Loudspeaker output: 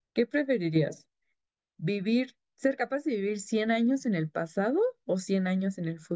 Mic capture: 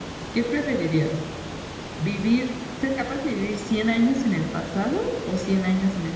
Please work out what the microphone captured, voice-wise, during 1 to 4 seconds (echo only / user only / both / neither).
echo only